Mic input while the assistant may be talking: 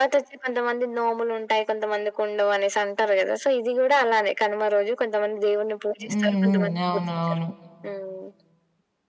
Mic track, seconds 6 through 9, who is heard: both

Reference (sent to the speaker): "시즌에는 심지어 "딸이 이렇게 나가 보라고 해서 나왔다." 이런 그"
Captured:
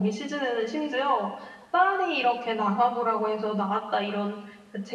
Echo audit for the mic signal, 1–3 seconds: echo only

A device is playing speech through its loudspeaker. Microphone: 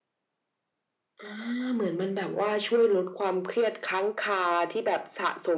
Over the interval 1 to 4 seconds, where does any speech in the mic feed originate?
echo only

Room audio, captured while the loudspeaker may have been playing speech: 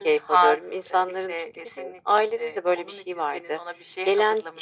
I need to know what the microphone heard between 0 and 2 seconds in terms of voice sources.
echo only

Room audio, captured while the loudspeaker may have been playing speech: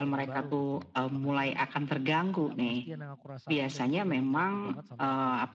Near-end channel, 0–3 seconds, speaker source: both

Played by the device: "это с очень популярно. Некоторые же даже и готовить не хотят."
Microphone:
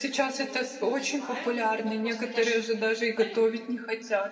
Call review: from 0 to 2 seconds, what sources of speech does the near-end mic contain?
both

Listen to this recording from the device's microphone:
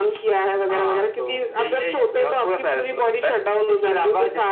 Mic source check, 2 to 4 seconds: echo only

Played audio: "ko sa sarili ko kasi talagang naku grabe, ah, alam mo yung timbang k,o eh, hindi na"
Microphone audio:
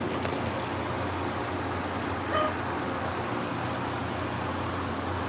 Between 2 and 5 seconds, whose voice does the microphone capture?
neither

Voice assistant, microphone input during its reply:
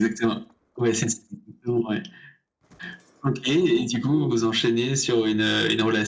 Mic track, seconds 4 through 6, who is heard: echo only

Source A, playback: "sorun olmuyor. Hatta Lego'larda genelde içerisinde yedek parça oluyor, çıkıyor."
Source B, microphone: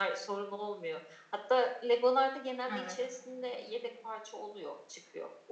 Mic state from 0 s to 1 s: echo only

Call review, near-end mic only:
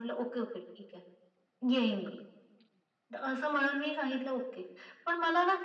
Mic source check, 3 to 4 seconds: echo only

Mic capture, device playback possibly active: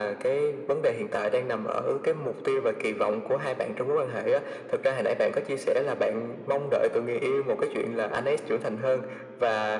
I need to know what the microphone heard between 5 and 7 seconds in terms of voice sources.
echo only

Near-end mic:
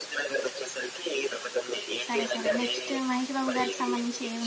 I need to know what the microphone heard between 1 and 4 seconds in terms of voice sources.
both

